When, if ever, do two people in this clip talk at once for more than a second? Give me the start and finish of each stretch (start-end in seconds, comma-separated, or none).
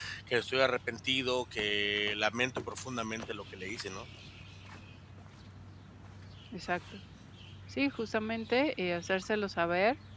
none